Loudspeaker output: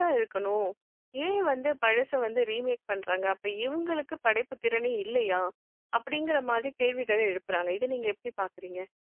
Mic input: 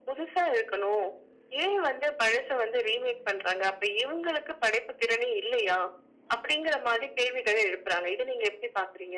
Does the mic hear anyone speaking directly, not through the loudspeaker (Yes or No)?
No